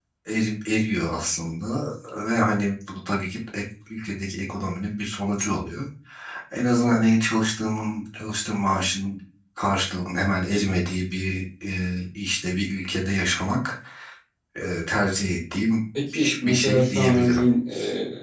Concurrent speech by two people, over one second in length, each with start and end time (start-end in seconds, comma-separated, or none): 16.1-17.4